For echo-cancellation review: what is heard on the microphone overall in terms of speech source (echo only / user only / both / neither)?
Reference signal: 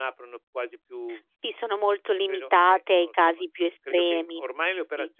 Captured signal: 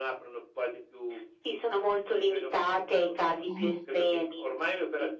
both